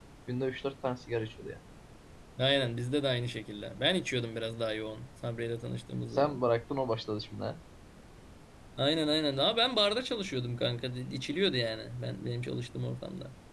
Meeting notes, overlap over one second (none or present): none